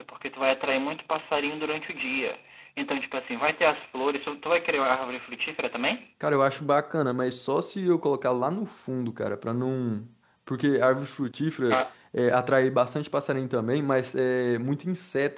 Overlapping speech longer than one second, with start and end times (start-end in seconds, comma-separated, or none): none